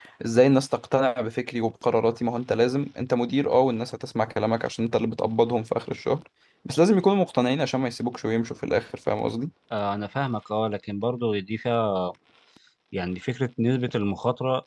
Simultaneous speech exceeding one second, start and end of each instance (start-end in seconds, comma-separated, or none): none